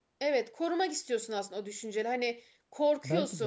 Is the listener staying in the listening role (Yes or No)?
Yes